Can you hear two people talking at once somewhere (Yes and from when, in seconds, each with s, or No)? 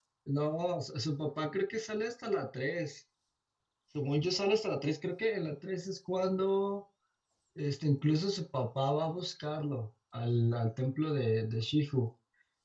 No